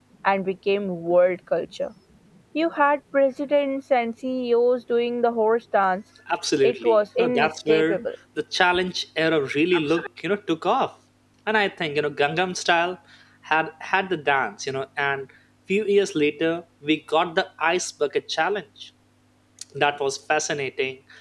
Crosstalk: present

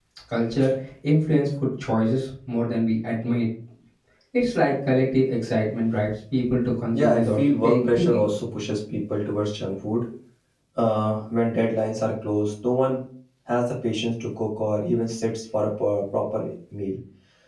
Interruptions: present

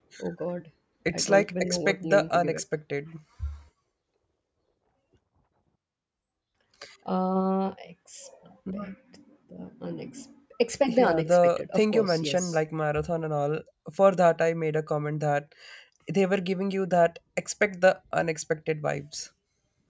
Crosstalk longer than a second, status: present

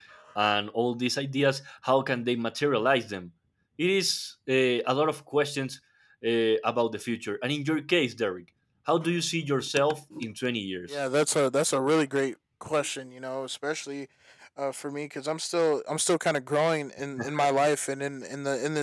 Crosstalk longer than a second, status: none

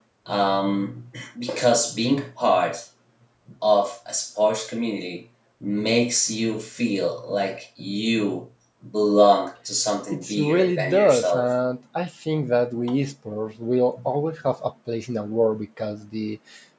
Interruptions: present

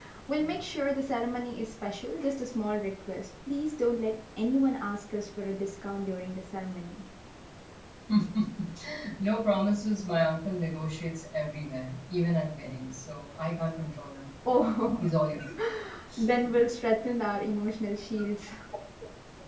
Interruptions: none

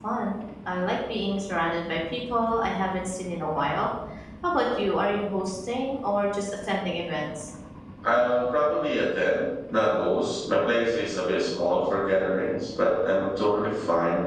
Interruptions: none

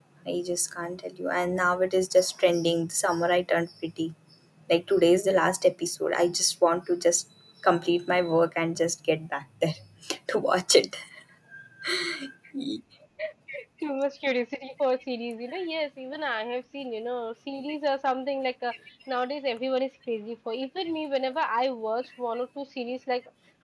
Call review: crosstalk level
none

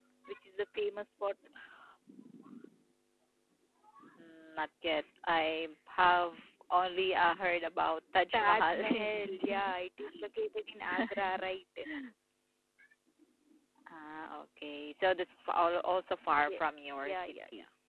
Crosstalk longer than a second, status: present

